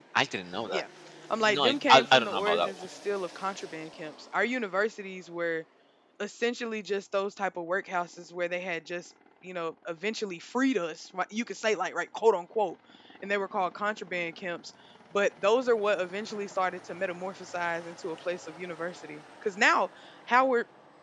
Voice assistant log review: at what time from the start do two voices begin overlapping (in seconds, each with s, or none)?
1.4 s